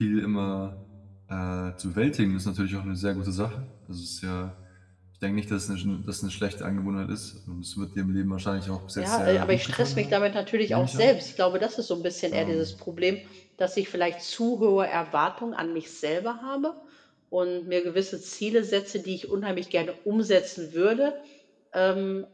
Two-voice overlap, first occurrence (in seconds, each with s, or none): 9.0 s